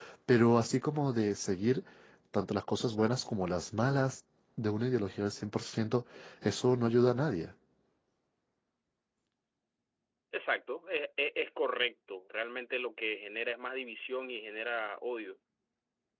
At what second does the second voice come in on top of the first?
none

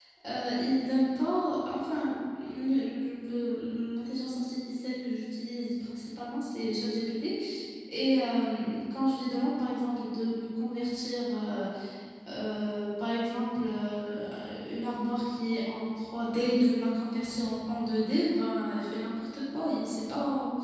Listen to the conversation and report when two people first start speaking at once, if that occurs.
none

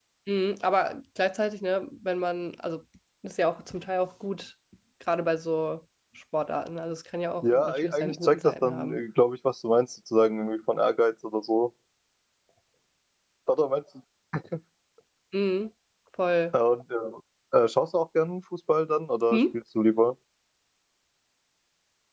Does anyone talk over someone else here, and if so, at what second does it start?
7 s

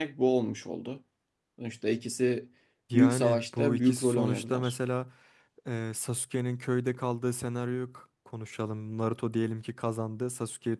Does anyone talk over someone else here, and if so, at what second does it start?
3 s

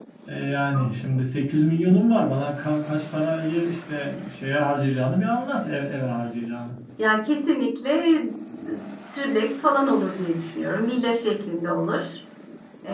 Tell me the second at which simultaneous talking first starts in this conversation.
none

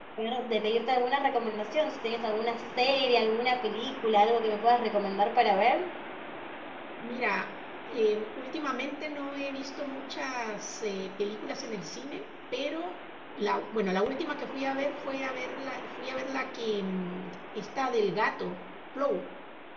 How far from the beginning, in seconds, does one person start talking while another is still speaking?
none

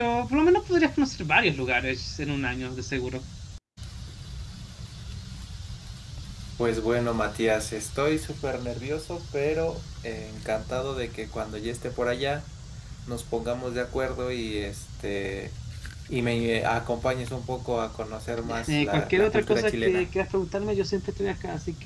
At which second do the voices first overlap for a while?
18 s

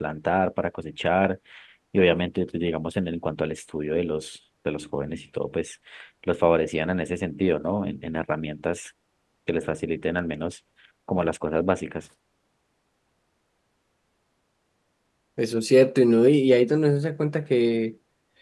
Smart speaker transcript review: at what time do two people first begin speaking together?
none

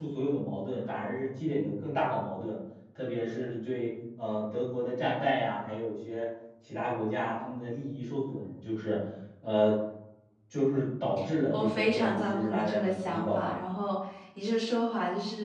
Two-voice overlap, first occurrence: 12 s

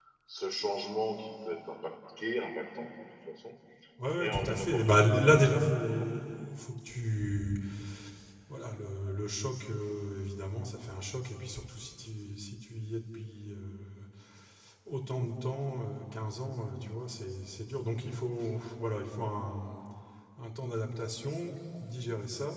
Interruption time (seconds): 4 s

